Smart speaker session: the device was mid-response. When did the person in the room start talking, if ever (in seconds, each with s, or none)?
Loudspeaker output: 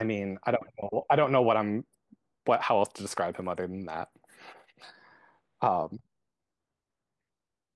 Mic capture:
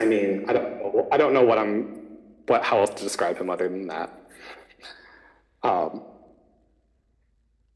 none